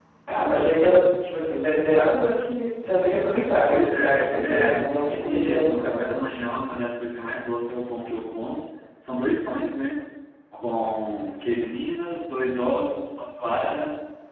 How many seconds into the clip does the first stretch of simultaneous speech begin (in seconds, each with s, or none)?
3.7 s